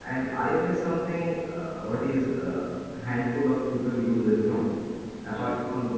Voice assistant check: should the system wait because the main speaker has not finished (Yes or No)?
Yes